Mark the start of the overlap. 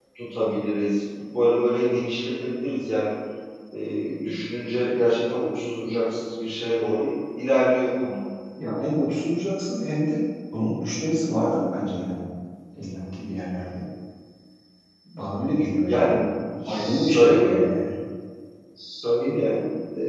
15.8 s

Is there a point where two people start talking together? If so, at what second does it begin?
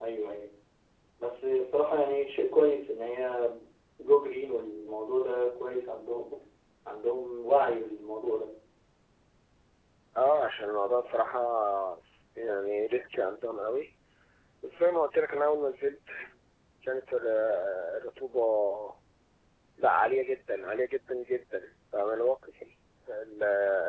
none

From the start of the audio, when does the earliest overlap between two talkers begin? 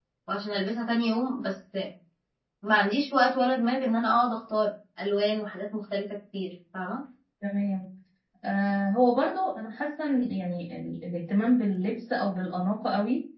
none

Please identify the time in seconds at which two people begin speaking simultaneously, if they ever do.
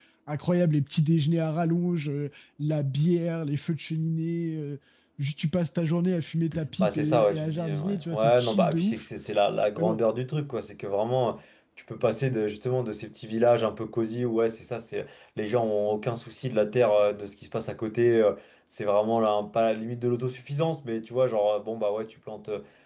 6.8 s

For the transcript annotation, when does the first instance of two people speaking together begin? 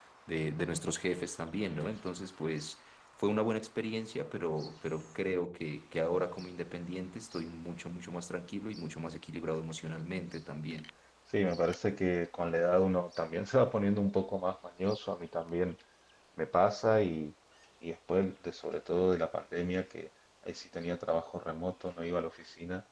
none

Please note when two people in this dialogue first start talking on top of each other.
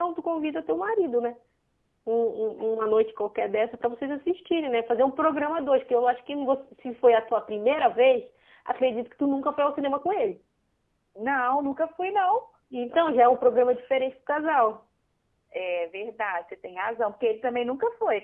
none

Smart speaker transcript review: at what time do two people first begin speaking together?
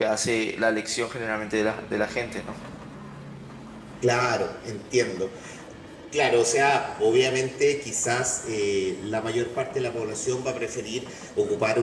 none

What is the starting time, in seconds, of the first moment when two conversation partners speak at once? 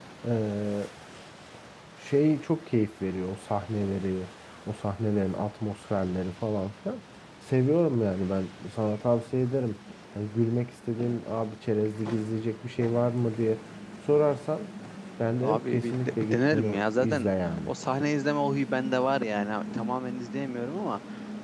15.4 s

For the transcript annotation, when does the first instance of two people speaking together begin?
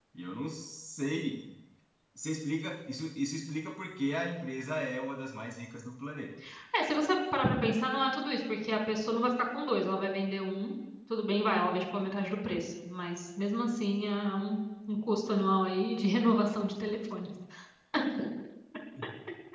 none

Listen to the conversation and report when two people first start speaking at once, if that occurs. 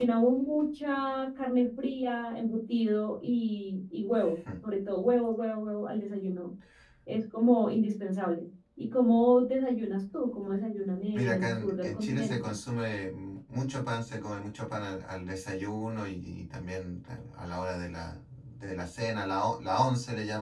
11.1 s

